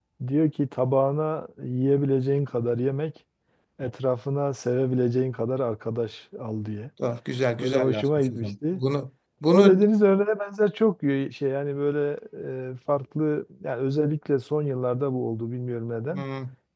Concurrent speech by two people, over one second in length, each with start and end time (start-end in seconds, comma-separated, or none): 7.6-8.8